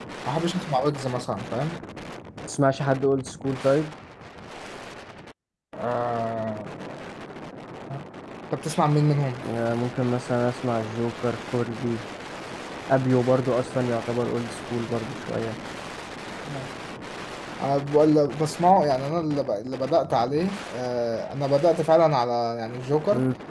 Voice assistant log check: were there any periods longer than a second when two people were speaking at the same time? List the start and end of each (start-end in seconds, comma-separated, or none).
none